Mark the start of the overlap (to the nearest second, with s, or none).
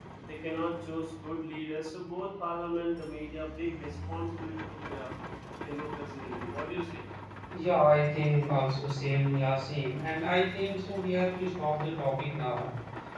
none